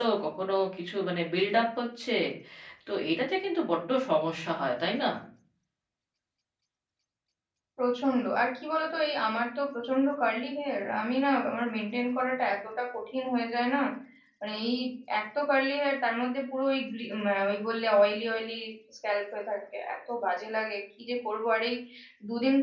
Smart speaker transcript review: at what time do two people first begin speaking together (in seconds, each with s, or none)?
none